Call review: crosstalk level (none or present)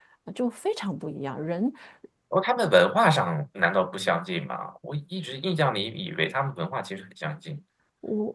none